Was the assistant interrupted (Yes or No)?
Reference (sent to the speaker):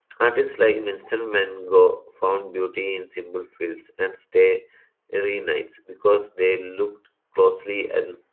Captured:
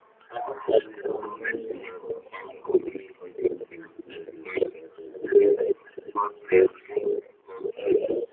Yes